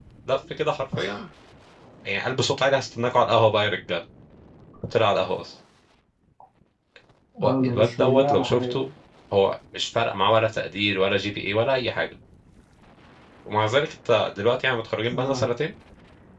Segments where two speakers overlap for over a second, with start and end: 7.5-8.8

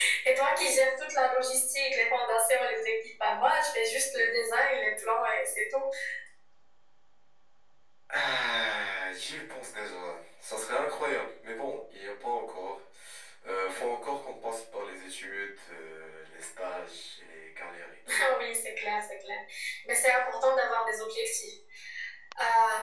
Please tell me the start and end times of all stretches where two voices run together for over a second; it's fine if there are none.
none

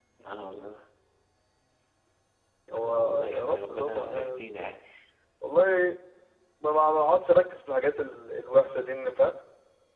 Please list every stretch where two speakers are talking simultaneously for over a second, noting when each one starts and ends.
2.8-4.6

